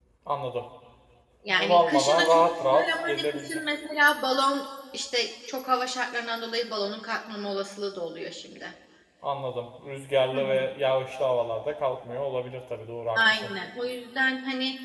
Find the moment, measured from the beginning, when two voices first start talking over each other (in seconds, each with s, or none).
1.5 s